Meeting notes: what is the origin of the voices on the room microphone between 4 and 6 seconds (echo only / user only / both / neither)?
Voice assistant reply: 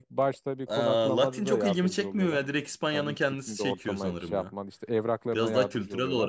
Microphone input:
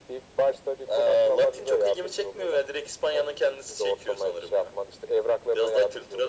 echo only